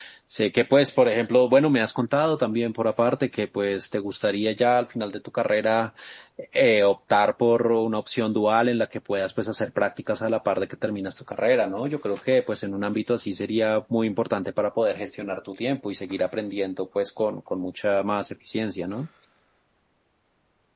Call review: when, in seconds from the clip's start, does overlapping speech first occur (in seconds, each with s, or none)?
none